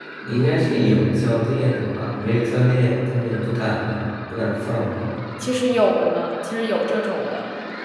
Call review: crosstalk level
none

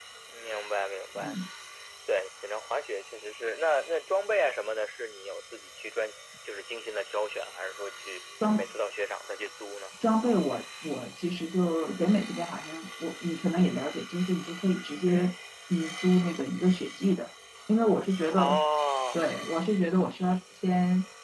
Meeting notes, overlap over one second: none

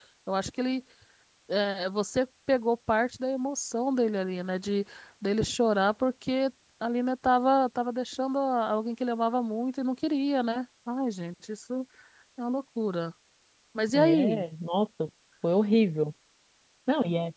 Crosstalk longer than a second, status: none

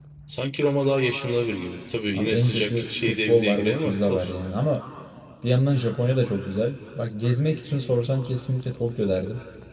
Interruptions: present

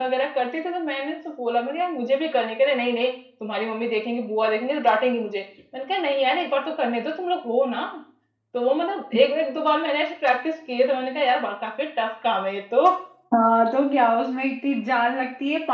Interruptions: none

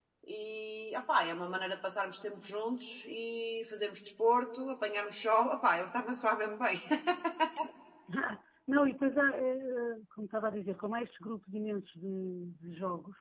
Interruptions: none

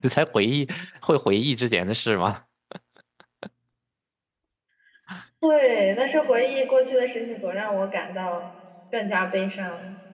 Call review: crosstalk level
none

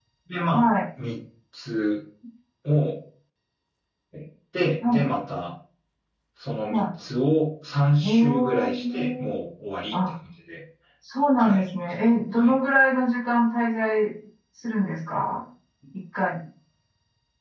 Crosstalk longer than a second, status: present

